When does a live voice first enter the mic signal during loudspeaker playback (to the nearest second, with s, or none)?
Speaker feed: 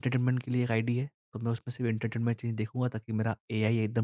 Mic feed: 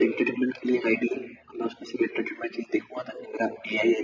none